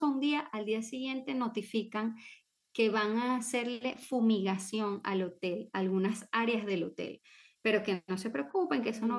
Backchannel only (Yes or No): Yes